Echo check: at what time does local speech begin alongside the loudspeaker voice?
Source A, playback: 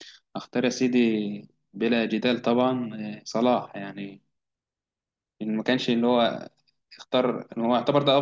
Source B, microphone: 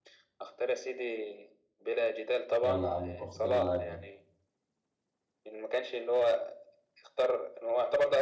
2.6 s

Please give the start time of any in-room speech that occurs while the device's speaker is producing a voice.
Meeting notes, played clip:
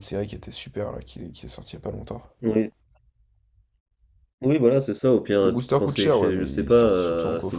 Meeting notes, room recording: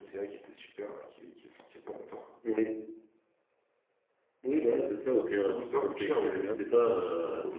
6.3 s

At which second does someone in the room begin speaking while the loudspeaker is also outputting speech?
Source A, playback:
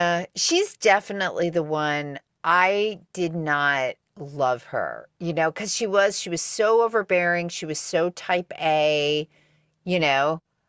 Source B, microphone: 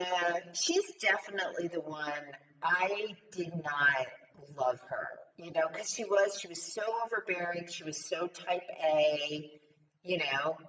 none

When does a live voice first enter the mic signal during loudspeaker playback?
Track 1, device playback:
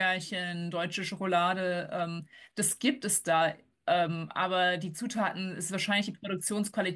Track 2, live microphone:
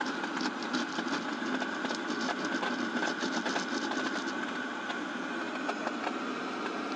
none

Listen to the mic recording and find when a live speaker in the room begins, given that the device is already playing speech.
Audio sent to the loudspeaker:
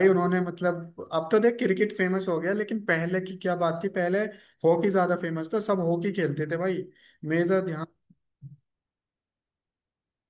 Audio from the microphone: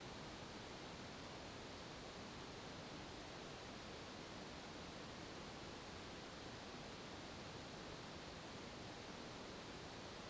none

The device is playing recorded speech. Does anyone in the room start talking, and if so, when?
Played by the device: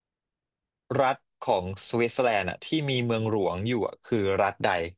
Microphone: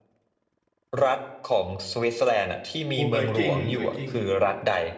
3.0 s

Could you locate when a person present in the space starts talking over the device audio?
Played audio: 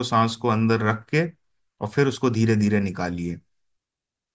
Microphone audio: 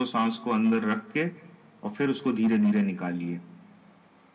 none

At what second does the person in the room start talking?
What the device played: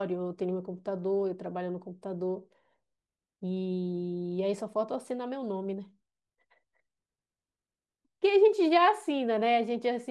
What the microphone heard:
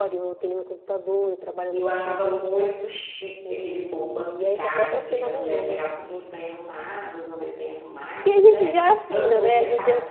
1.7 s

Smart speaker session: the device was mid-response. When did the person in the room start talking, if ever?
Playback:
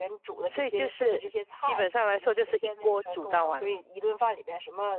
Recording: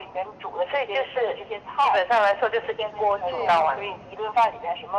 3.2 s

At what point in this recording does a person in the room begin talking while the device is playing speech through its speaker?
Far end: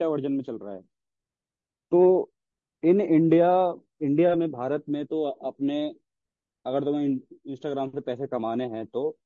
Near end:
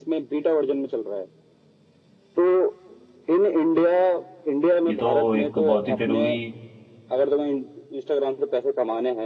4.9 s

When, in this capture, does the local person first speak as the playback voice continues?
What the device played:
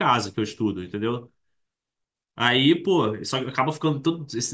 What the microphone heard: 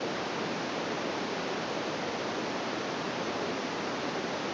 none

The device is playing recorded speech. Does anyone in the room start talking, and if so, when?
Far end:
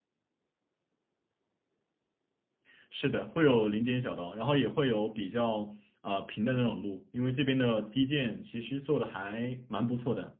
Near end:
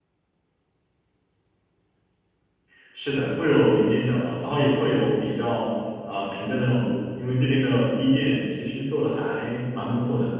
none

